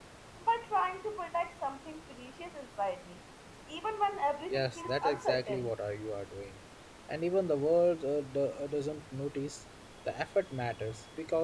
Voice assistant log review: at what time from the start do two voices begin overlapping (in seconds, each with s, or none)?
4.5 s